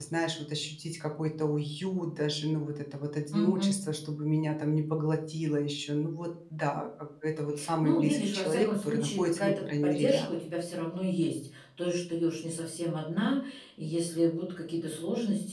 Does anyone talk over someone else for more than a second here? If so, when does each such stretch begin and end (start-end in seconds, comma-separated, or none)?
7.8-10.5